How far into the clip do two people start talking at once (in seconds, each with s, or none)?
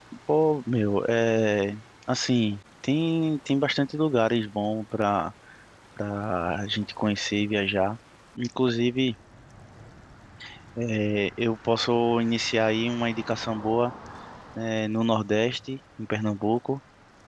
none